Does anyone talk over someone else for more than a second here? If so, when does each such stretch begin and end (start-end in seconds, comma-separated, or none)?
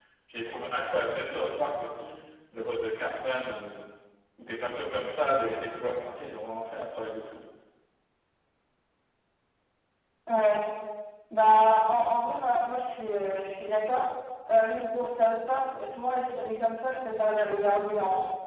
none